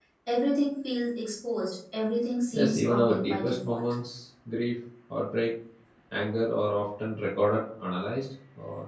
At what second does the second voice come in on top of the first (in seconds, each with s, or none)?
2.5 s